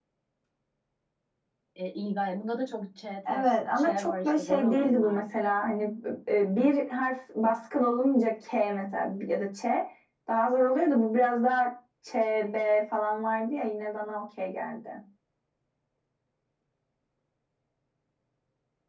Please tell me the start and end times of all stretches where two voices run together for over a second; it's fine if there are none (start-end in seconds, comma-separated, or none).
3.8-5.2